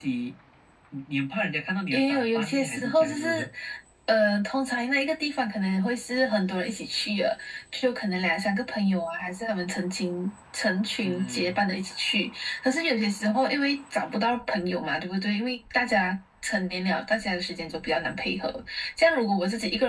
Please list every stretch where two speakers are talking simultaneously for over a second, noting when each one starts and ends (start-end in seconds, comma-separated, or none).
1.9-3.5